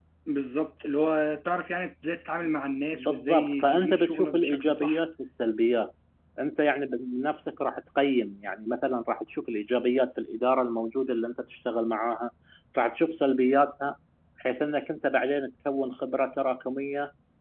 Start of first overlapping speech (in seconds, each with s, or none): 2.9 s